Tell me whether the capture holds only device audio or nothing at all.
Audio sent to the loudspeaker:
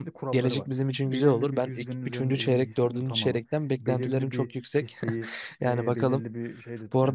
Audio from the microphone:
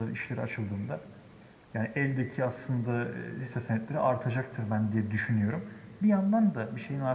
No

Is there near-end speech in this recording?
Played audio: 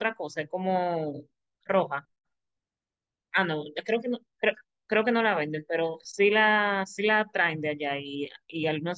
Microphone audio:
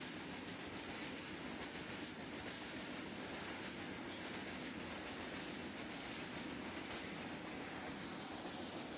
No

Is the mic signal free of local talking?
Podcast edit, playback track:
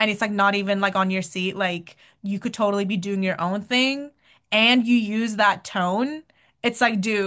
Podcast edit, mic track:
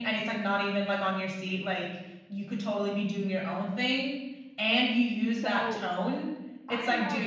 No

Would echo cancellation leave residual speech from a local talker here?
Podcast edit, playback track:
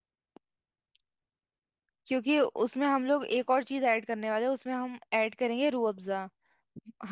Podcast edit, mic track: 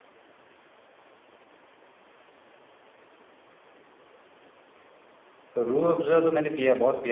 Yes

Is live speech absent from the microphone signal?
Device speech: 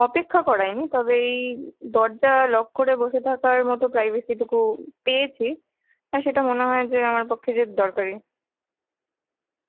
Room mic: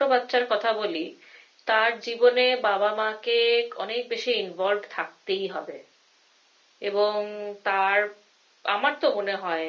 No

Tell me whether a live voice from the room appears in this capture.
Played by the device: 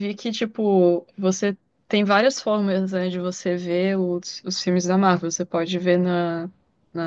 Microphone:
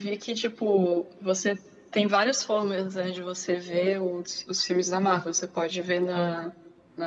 No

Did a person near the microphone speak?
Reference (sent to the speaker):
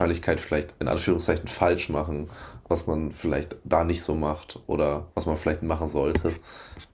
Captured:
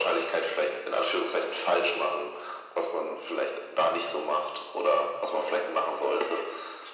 No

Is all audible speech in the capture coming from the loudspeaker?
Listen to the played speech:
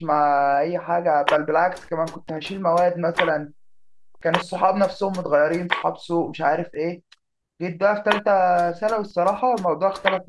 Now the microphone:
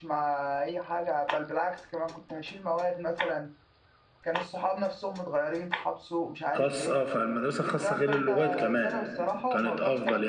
No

